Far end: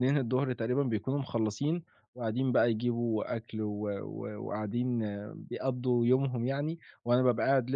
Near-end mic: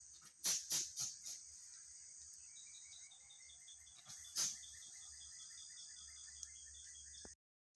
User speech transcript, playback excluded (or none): none